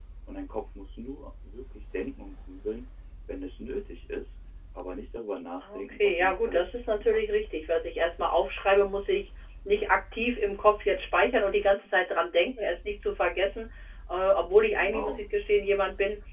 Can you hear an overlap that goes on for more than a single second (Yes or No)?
Yes